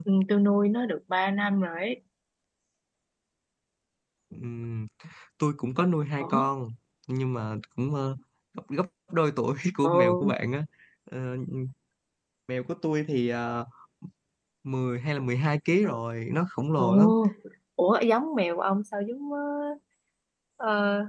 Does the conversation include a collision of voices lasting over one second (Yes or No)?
No